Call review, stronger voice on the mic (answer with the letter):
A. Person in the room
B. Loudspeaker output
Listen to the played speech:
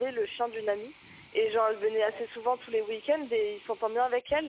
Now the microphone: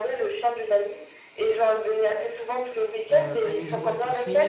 B